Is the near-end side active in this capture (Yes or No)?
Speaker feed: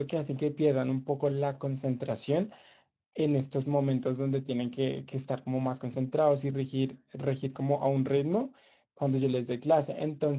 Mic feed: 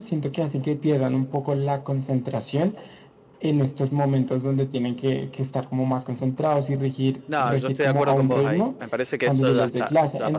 Yes